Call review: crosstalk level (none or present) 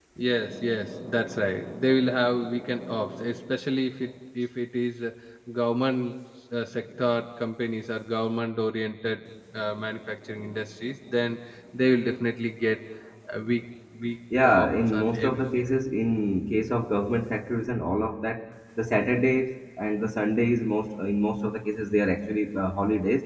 present